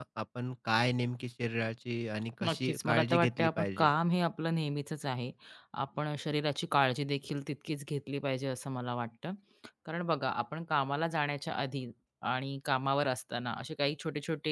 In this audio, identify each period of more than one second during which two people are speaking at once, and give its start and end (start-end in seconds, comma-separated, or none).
2.4-3.9